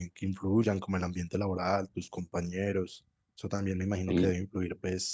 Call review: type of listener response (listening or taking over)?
listening